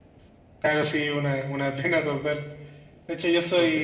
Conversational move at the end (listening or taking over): listening